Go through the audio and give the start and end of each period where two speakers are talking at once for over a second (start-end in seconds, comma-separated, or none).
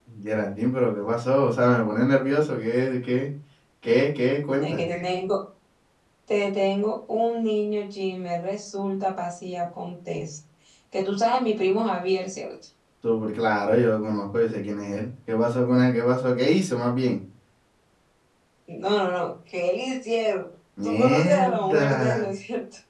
20.8-22.2